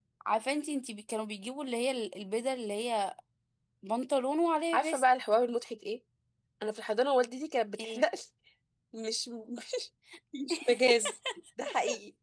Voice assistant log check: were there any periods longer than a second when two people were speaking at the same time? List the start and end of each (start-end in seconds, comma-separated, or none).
none